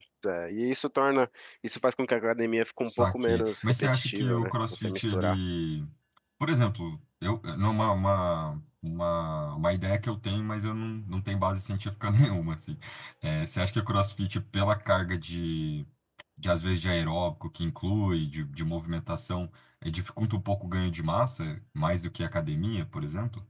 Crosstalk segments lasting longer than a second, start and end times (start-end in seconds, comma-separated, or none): 2.9-5.4